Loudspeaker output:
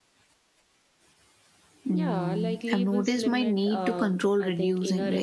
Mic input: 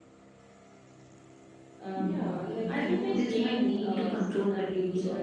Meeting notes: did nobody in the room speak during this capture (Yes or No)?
No